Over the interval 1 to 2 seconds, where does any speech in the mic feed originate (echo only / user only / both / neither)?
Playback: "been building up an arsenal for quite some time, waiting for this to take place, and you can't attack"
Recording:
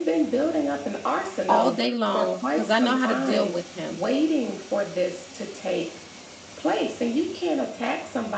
both